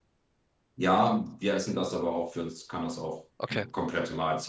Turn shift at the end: No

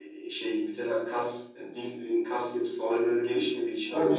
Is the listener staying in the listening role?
No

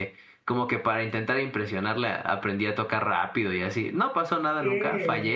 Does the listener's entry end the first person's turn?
Yes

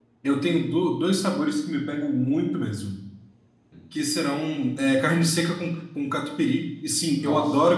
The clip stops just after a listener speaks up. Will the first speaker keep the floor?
Yes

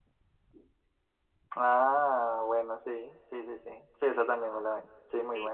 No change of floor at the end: No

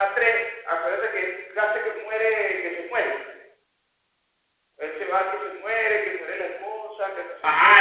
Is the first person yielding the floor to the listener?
Yes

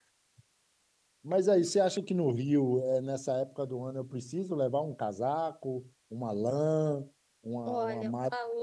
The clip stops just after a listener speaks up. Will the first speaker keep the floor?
No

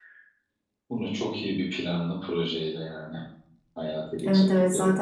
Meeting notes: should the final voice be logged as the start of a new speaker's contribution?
Yes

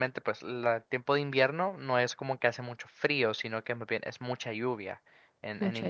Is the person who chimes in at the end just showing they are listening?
Yes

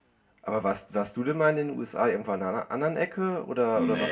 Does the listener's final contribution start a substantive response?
Yes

